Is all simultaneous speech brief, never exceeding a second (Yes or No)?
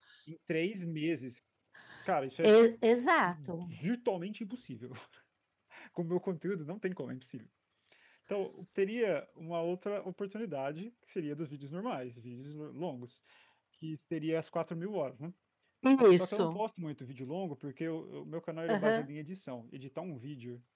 Yes